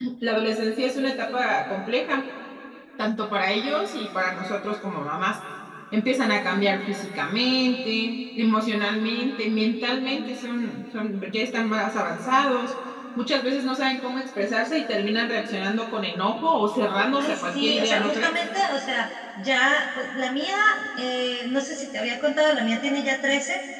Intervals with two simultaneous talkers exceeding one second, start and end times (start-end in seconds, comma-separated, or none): 17.2-18.4